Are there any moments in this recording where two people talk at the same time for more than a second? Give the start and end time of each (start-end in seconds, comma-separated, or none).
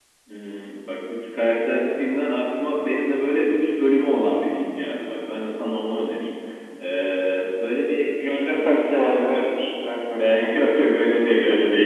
8.2-9.5